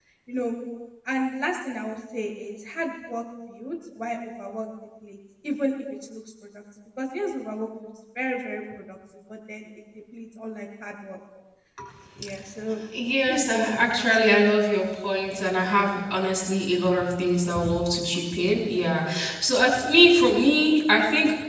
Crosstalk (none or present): present